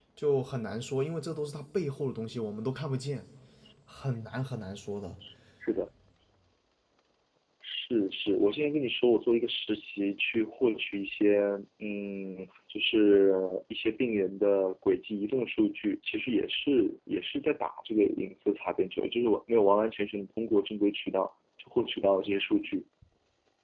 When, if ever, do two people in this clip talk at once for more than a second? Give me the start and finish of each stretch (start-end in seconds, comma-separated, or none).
none